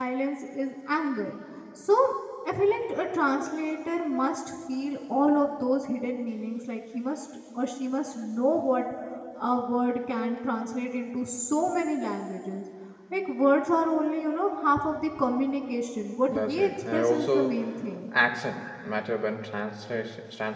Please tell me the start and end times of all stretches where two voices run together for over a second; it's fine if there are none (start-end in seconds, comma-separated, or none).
16.3-17.6